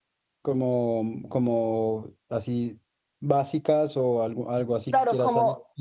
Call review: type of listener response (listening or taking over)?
taking over